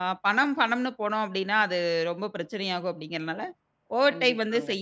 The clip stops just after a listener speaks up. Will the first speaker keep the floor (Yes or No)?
Yes